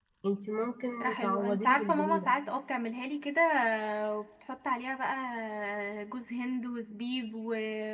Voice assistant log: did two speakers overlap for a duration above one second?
Yes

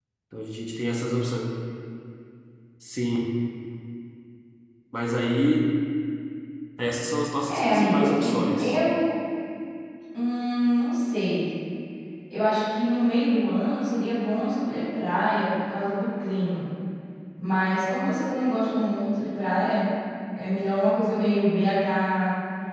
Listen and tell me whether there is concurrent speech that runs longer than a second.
Yes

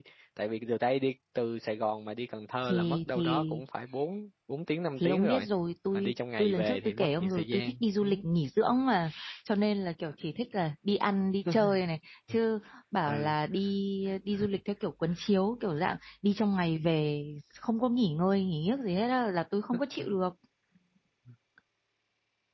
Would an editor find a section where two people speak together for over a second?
Yes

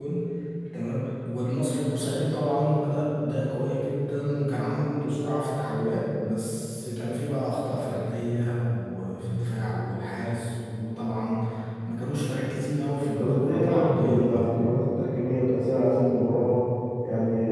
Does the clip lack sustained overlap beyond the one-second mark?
No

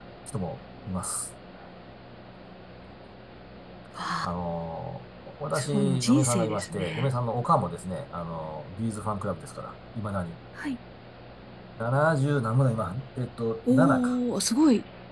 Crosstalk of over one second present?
Yes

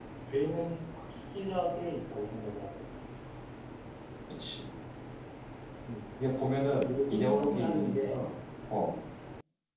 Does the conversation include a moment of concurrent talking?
Yes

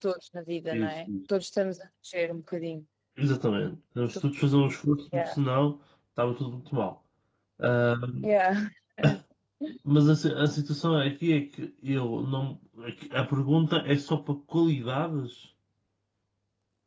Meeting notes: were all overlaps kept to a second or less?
Yes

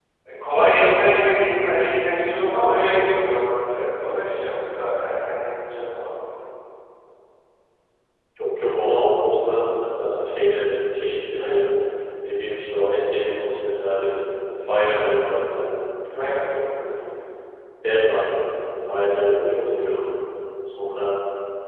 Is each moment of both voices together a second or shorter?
Yes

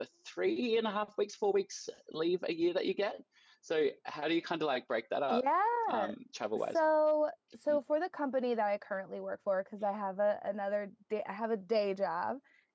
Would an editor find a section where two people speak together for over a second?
No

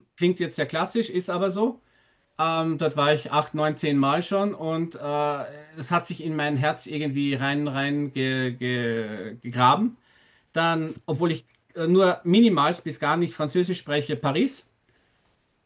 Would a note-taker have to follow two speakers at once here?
No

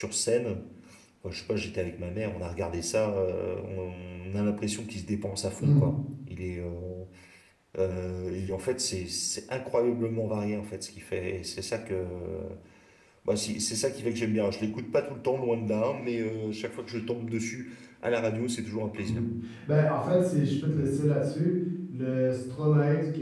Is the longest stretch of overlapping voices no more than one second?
Yes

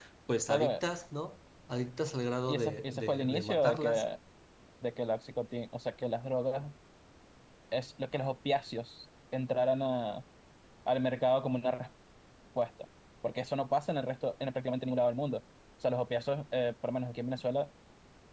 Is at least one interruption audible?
Yes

